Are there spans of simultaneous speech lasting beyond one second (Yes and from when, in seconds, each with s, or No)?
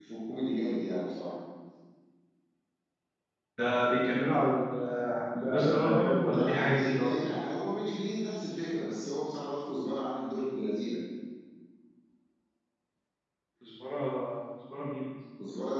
Yes, from 5.4 s